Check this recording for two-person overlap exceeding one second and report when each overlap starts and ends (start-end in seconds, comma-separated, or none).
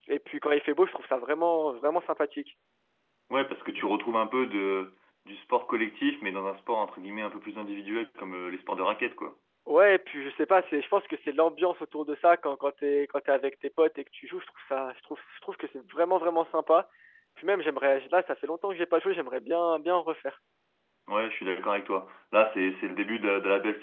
none